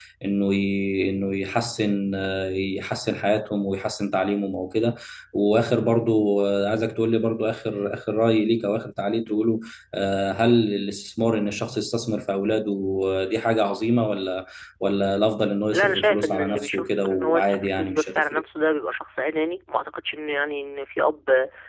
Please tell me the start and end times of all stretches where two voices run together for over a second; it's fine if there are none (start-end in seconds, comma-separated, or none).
15.7-18.4